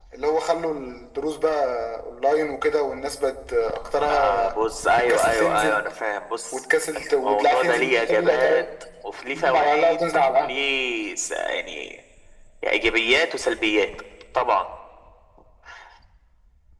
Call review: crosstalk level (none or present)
present